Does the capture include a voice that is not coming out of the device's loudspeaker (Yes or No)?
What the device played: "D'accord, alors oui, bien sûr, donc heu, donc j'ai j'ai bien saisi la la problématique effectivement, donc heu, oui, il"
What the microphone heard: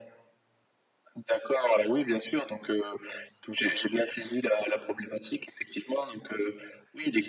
No